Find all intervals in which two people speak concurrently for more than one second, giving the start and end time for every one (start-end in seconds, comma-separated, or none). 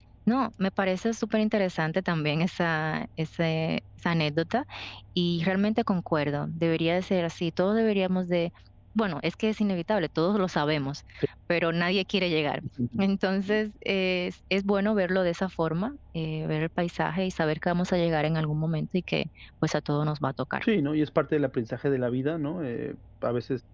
none